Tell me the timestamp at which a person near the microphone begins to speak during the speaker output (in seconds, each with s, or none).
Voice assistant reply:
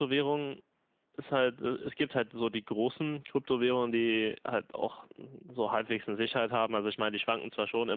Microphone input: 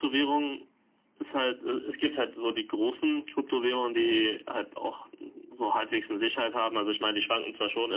none